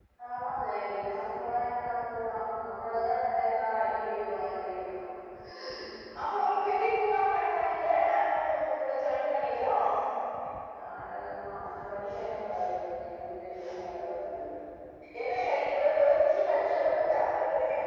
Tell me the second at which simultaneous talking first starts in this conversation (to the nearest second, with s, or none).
none